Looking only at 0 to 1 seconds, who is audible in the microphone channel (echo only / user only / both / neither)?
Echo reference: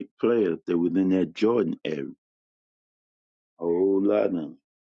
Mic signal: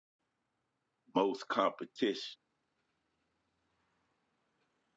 neither